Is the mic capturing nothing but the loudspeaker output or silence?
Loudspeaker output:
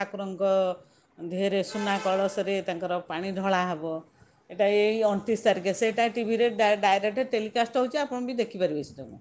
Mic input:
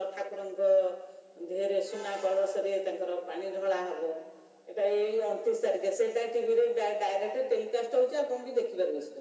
Yes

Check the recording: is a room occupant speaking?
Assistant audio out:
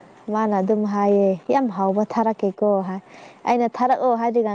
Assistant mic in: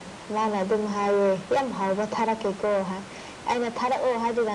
No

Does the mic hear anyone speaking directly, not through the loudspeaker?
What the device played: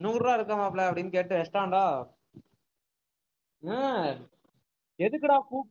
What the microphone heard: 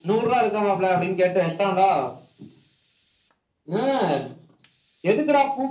No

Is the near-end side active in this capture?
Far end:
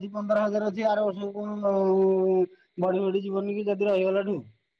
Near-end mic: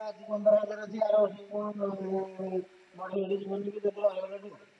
No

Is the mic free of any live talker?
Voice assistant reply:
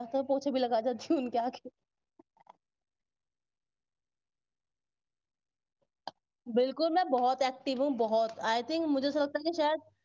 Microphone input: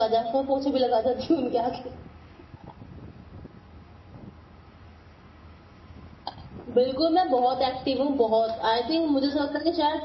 Yes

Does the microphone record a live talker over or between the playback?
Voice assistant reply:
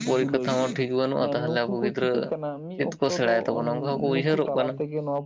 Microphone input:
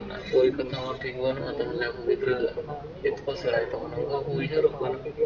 No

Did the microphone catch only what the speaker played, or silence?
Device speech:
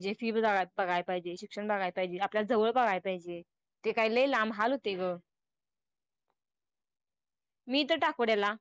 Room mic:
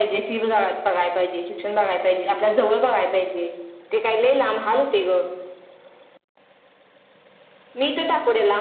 Yes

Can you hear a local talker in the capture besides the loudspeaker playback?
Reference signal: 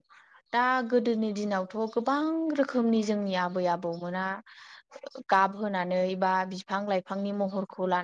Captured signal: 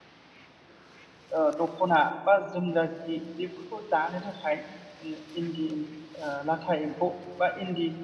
Yes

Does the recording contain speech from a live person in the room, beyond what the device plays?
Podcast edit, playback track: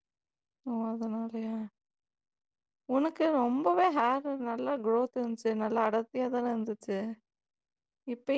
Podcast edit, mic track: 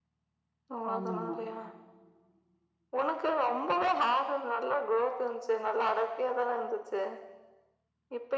Yes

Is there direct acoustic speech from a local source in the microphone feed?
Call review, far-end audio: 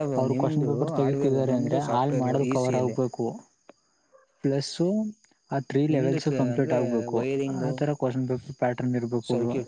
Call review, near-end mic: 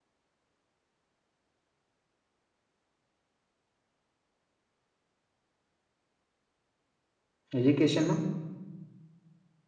Yes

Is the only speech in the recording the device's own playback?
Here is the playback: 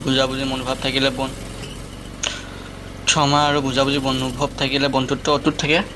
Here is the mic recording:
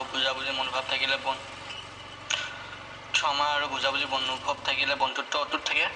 Yes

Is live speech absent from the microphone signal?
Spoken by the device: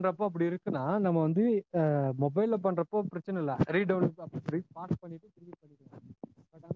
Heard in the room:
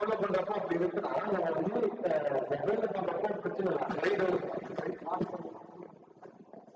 Yes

